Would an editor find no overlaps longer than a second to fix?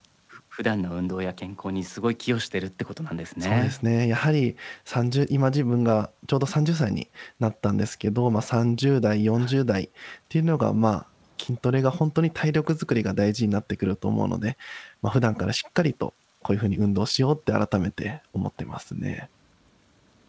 Yes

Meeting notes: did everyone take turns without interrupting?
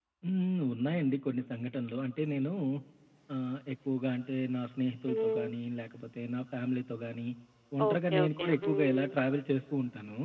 No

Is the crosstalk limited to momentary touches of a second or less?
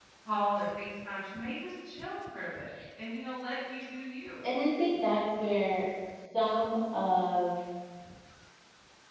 Yes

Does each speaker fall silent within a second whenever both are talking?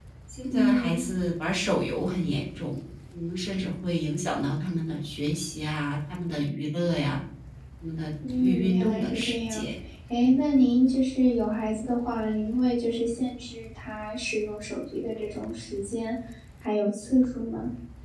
No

